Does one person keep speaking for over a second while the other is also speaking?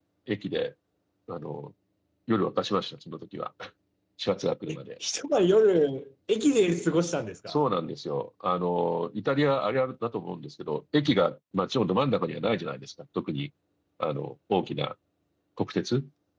No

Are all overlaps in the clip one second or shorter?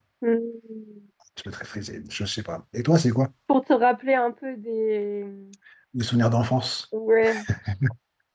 Yes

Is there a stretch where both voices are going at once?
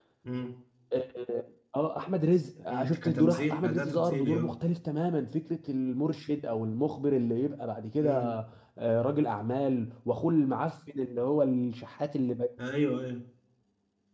Yes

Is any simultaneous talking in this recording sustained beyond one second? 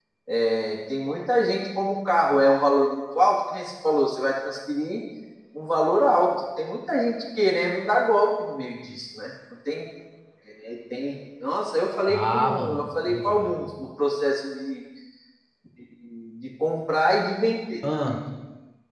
Yes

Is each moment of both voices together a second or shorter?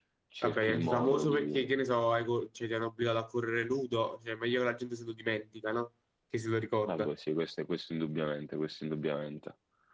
No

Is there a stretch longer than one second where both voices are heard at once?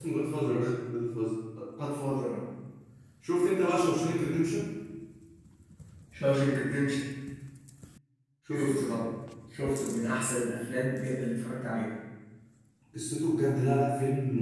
No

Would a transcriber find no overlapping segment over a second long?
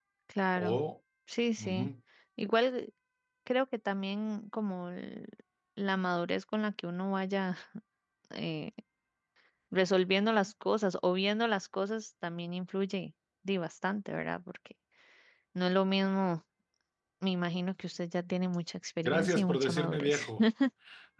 No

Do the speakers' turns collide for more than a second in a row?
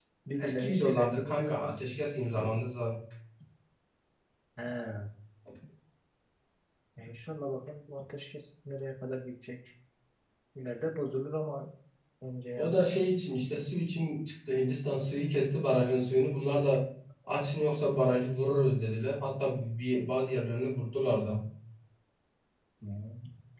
Yes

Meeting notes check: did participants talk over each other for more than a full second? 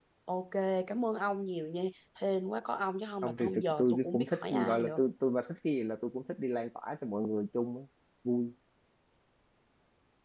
Yes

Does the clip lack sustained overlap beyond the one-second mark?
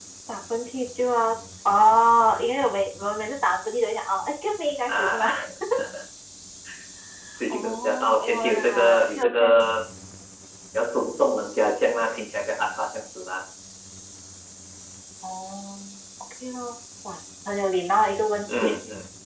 No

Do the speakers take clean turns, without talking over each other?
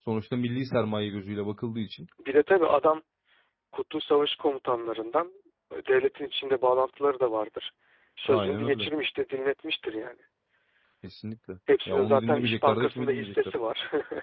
No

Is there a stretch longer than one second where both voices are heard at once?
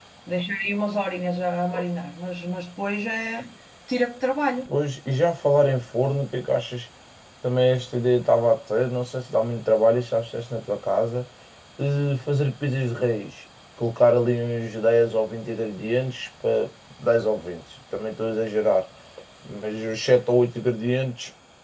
No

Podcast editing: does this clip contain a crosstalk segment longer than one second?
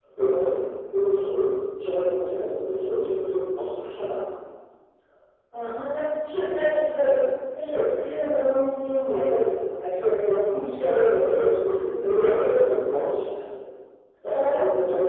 Yes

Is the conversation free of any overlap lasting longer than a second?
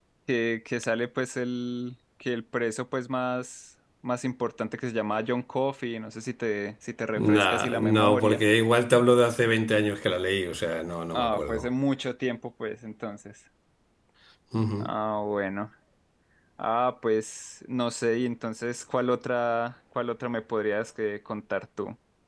No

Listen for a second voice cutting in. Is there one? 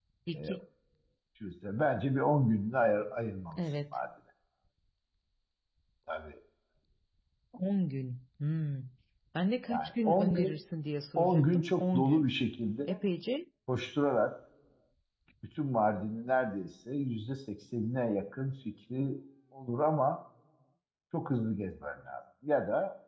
Yes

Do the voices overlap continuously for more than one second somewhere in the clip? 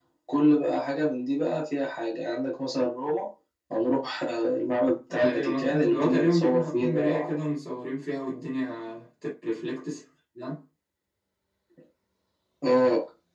Yes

